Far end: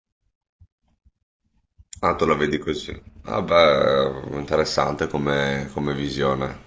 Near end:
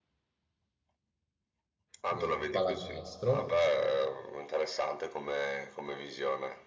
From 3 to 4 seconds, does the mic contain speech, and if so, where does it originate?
both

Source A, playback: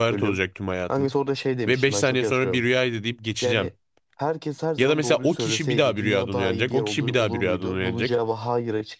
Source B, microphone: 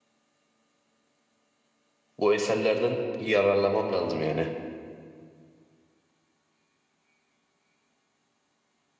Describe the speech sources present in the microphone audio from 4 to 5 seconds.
user only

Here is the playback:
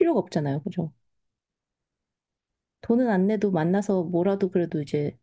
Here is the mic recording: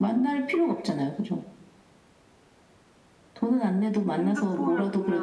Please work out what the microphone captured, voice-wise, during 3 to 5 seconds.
both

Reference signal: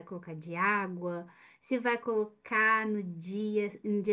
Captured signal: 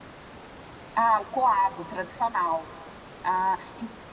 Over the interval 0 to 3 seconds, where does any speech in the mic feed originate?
user only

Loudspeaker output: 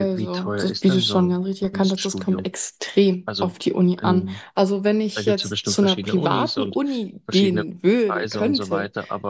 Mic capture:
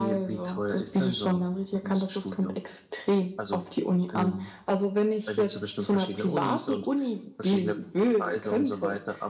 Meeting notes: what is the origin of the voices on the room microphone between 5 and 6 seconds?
echo only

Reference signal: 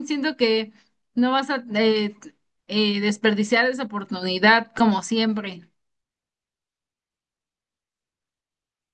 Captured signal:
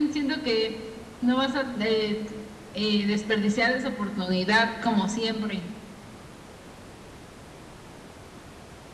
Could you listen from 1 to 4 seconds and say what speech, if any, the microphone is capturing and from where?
echo only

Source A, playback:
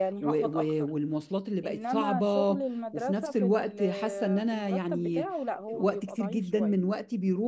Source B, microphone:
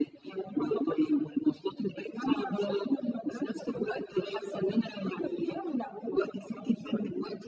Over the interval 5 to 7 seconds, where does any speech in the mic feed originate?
echo only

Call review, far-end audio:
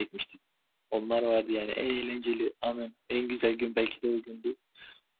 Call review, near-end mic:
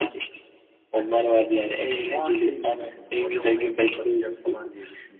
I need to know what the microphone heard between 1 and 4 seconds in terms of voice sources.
both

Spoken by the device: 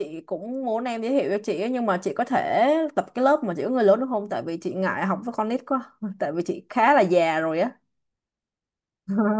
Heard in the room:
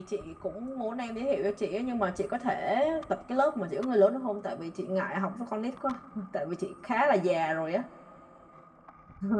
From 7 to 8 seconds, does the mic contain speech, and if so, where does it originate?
echo only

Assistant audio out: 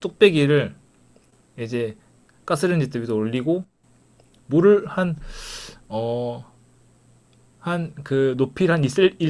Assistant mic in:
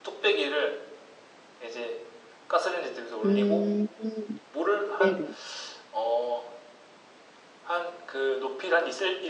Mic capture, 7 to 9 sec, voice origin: echo only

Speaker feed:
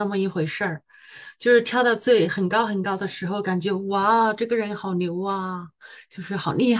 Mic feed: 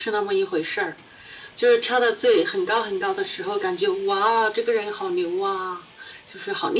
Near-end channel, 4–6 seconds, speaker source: echo only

